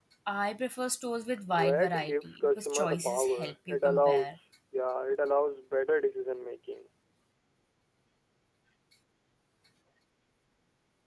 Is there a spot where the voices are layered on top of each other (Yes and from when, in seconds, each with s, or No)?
Yes, from 1.6 s